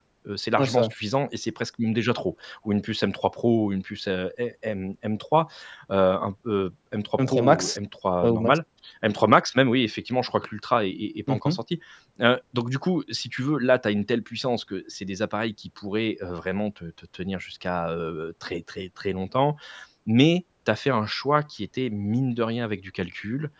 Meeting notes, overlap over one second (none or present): none